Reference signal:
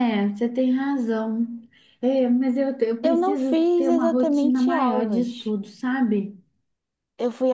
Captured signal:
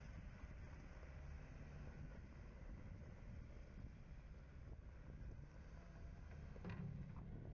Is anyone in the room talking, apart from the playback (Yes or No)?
No